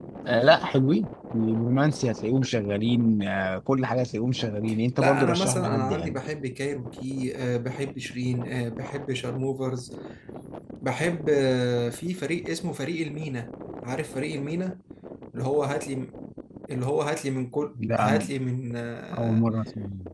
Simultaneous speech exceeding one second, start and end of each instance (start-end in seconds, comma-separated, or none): 5.0-6.2